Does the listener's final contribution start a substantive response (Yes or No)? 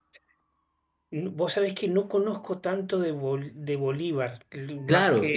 Yes